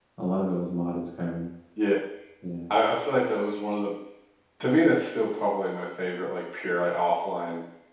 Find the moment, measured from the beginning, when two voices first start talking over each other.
none

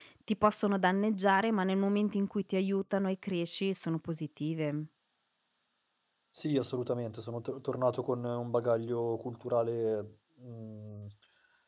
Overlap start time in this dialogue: none

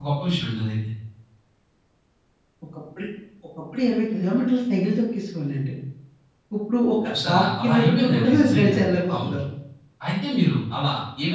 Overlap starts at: 7.1 s

